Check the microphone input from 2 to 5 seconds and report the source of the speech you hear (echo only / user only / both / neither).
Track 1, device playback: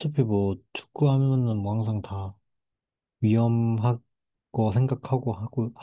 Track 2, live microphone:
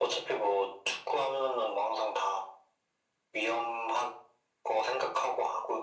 echo only